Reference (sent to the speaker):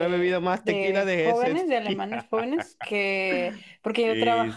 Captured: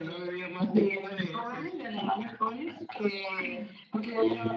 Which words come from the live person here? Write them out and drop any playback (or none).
none